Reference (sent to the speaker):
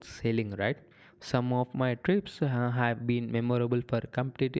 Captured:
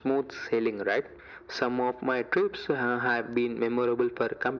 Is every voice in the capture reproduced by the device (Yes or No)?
Yes